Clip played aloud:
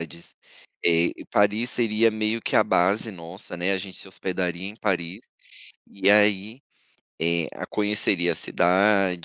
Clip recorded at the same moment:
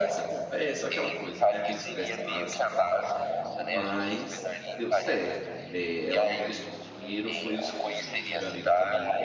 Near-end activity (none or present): present